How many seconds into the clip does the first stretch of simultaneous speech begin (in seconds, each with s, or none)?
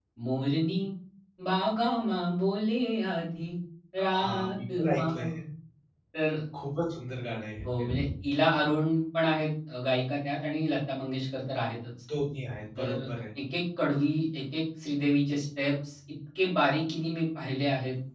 4.0 s